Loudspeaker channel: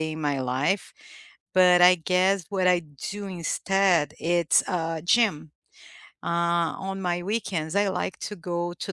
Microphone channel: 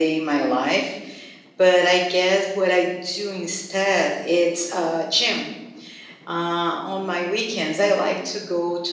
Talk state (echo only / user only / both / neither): echo only